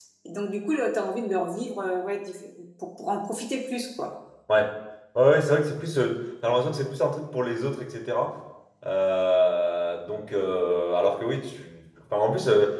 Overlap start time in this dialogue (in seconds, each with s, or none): none